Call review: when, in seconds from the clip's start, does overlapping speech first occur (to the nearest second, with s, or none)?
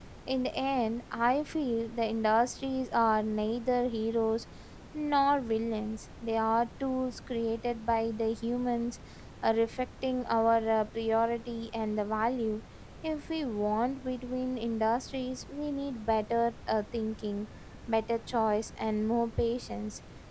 none